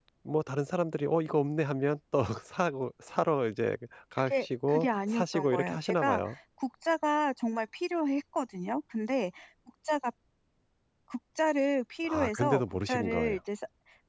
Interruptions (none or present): present